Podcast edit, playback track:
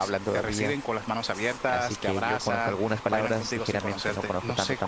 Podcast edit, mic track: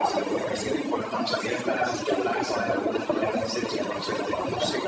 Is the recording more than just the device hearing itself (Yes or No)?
No